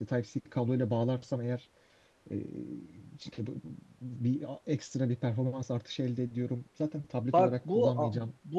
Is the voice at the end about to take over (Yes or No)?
Yes